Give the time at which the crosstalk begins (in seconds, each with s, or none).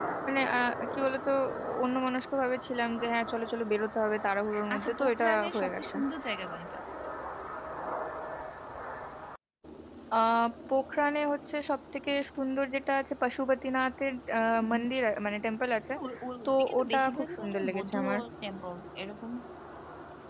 4.7 s